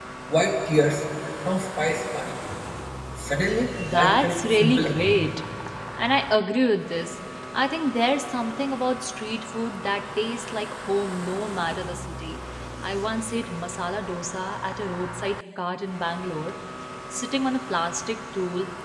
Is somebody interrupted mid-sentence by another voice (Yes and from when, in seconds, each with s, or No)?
Yes, from 3.9 s